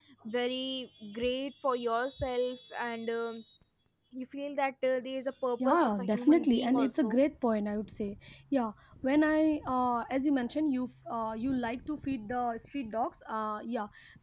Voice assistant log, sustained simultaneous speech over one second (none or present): present